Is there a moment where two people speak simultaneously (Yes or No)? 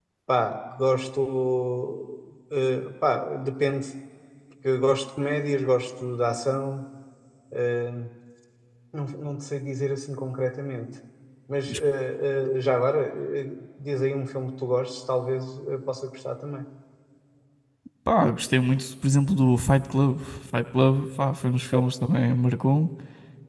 No